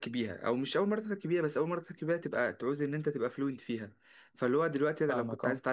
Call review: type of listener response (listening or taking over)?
listening